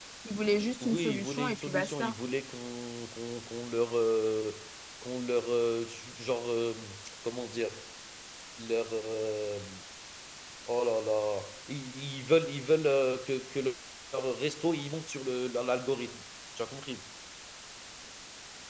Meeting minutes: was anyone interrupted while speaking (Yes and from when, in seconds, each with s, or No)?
Yes, from 0.8 s